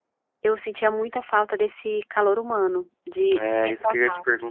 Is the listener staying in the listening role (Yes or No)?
No